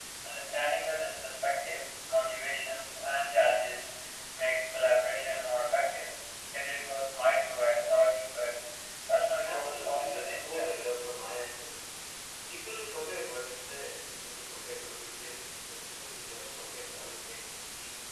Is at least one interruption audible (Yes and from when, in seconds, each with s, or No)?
Yes, from 9.4 s